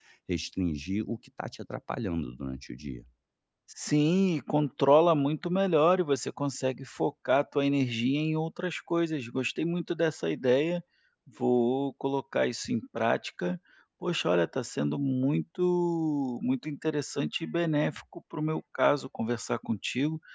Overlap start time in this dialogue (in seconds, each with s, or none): none